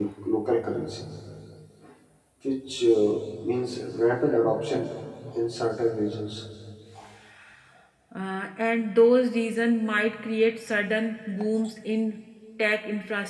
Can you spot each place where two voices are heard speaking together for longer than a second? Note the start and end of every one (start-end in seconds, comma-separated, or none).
none